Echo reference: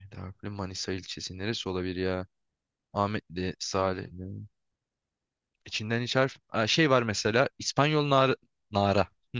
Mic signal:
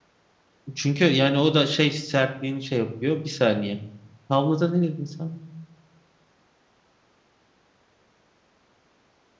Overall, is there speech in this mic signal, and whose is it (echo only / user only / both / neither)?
user only